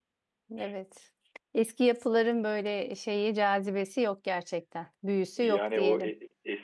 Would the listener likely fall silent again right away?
No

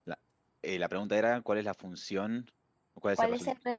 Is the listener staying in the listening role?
No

